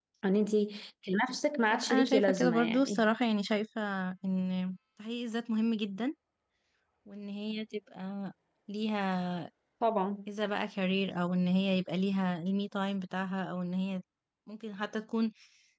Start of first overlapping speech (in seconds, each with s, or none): 1.7 s